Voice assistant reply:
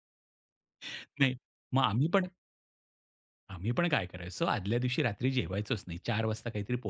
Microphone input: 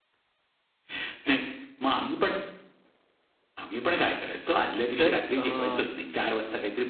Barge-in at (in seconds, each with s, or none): 5.0 s